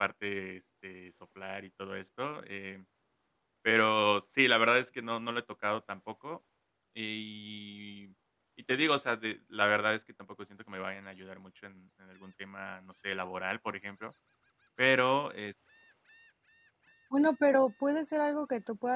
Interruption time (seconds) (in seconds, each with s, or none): none